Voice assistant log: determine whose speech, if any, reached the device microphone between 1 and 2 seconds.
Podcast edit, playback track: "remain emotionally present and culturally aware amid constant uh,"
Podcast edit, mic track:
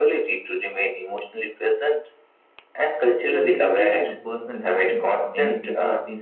echo only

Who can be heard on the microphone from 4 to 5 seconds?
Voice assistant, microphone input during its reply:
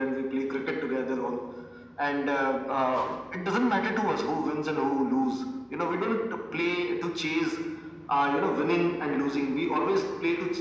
echo only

